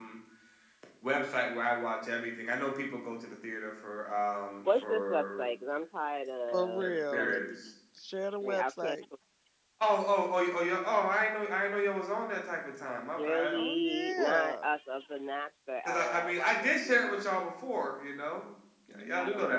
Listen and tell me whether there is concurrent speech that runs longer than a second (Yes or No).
Yes